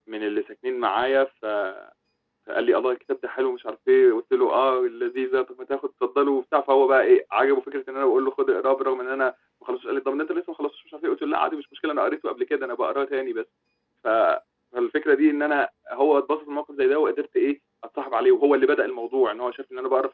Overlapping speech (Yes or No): No